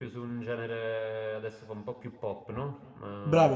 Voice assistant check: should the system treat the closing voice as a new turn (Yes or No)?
Yes